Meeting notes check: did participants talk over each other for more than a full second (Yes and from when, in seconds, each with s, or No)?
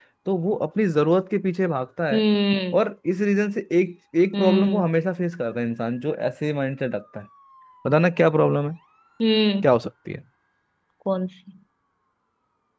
No